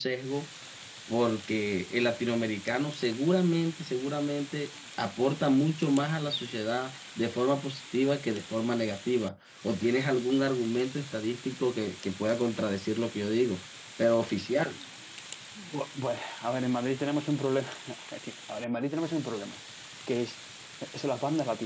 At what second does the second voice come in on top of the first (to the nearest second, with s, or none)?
none